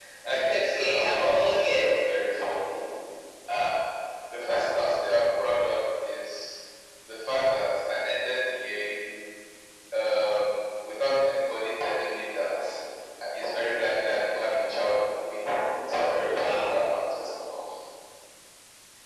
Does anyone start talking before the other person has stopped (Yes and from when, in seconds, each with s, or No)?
Yes, from 0.5 s